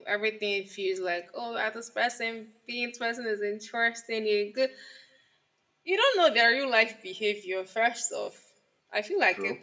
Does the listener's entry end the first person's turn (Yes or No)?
No